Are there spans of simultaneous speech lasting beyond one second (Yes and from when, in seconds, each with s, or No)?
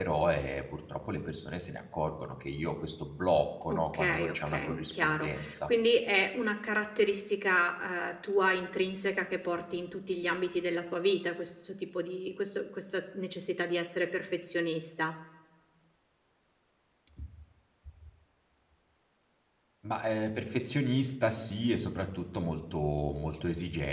Yes, from 3.7 s